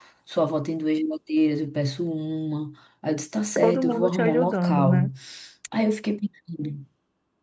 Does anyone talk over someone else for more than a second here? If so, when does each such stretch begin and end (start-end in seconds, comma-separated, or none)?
3.6-5.1